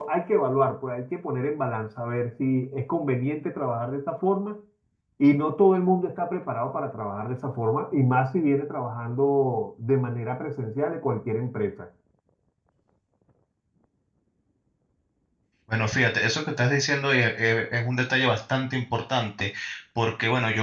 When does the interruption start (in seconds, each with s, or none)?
none